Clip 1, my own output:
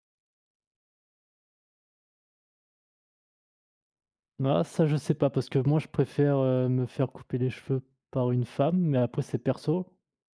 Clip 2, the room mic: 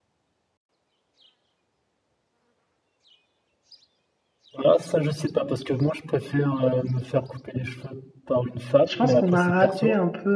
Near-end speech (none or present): present